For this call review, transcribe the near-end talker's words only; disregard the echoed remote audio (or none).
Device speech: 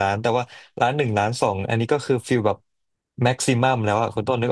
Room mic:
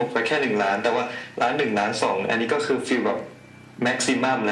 none